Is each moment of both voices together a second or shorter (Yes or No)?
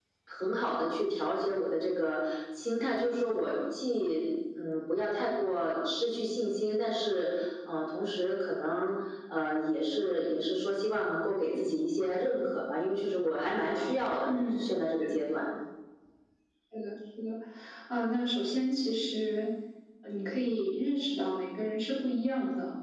Yes